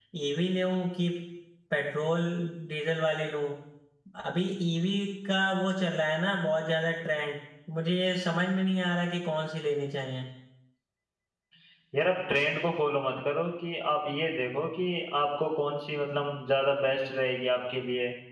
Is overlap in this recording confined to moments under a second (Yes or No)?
Yes